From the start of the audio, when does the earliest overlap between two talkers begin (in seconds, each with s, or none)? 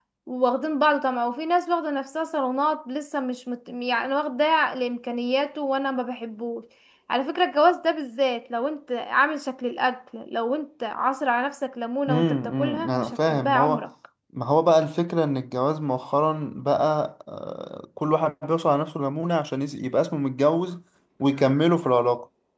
12.1 s